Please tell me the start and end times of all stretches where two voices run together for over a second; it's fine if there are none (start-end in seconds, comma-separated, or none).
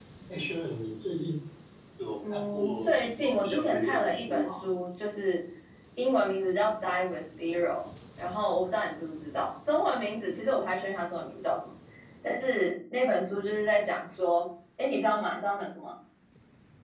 2.3-4.6